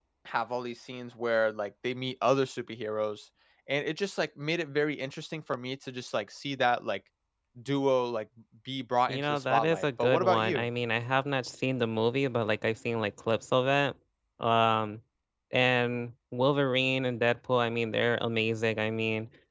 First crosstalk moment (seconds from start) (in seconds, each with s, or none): 9.1 s